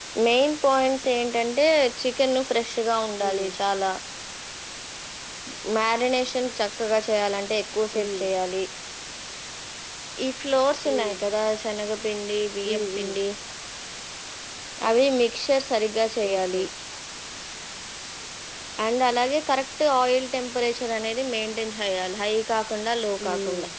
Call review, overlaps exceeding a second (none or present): none